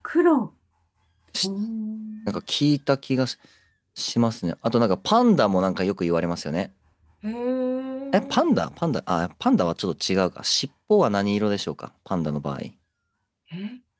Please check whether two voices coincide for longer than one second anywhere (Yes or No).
No